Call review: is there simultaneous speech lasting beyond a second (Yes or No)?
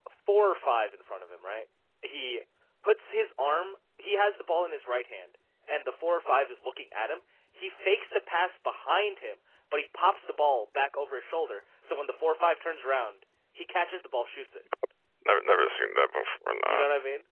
No